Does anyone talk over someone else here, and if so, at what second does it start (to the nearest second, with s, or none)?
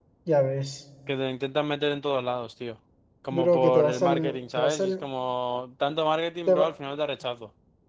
3 s